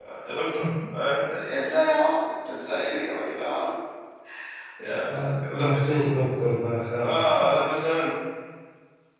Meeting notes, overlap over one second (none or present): present